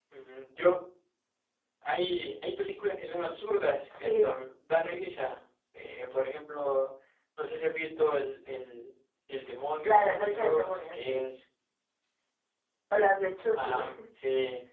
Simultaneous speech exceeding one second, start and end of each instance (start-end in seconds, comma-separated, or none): 9.8-11.2